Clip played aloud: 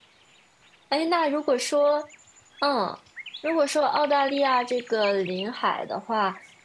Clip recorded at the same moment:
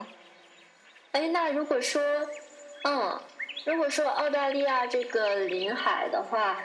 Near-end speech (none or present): none